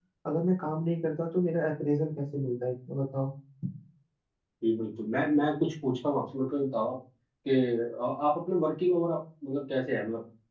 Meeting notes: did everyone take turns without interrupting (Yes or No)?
Yes